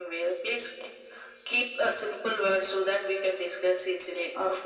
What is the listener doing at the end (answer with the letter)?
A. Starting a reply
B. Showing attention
A